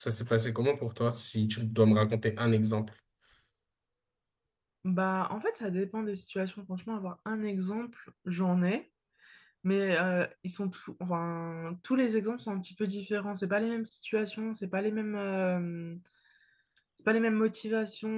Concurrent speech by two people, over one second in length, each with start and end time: none

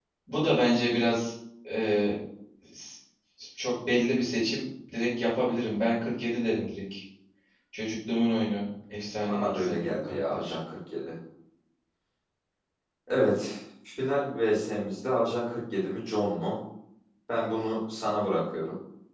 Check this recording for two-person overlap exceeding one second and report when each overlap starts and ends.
9.3-10.5

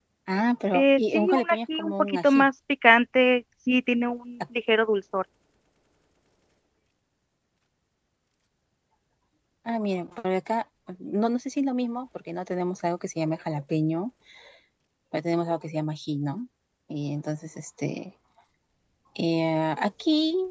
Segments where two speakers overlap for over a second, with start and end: 0.7-2.5

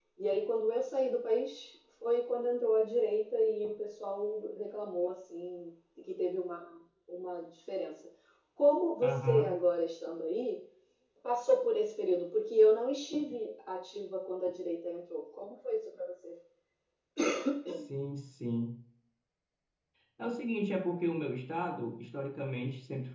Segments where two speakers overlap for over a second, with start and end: none

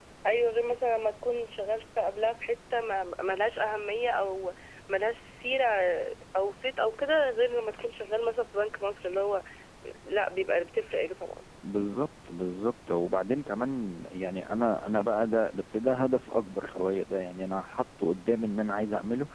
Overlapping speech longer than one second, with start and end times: none

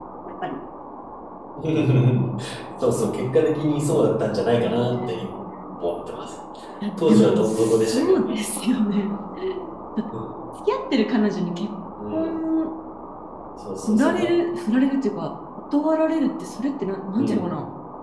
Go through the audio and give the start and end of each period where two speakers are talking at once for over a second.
7.0-8.4

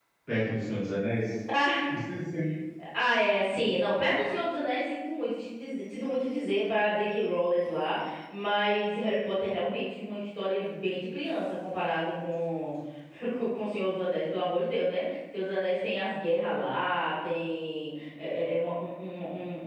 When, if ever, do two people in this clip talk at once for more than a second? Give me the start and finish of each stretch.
none

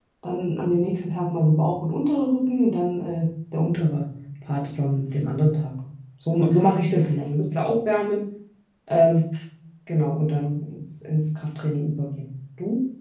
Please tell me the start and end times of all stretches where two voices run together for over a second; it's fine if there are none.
none

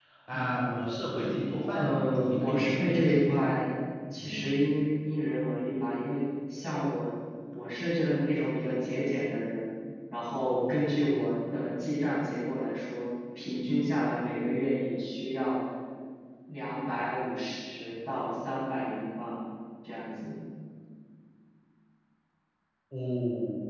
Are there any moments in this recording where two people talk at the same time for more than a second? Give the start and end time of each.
1.7-3.3

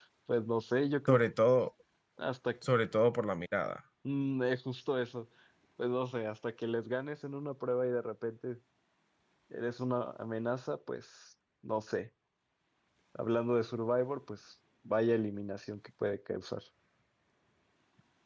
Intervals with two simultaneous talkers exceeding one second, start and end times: none

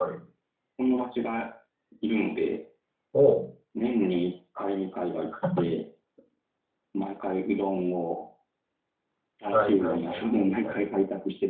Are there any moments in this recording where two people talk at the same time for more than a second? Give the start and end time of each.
9.5-10.8

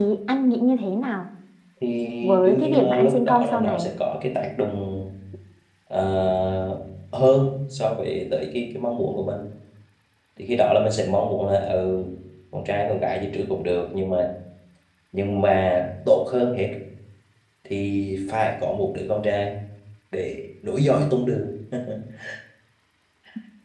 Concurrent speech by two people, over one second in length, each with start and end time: 2.5-3.9

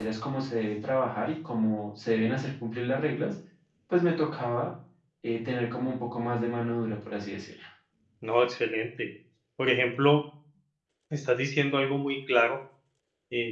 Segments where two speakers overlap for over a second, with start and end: none

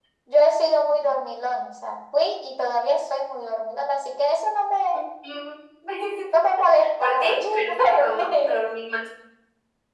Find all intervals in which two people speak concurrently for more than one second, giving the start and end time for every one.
7.0-8.6

